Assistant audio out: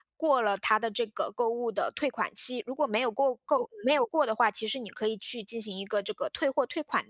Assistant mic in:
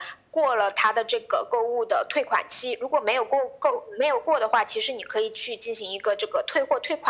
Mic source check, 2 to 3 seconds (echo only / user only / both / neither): echo only